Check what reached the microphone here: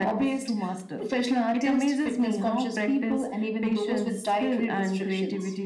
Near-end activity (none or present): none